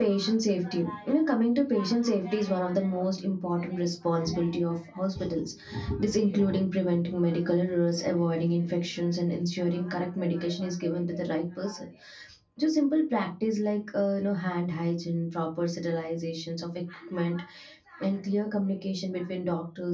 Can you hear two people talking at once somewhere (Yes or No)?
No